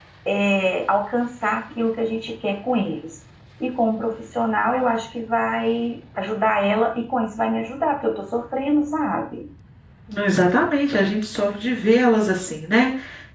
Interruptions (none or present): none